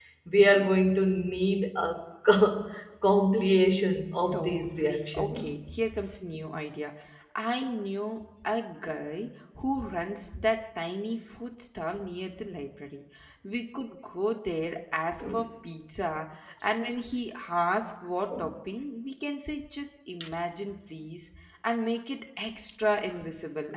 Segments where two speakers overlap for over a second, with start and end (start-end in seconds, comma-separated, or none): 4.3-5.5